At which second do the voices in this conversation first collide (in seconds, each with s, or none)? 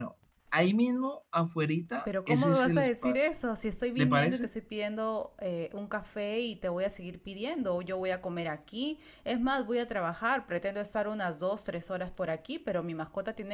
2.0 s